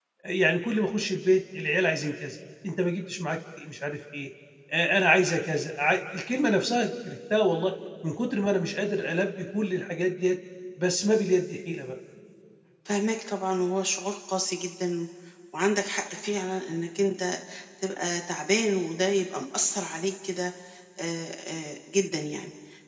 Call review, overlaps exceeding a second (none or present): none